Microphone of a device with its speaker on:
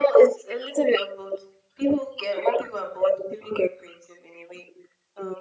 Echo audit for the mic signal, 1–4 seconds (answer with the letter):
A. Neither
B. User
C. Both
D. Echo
D